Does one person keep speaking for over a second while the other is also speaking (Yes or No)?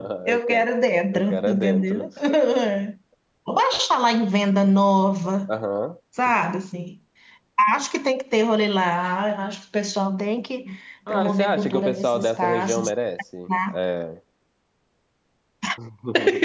Yes